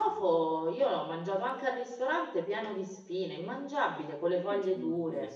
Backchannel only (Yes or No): No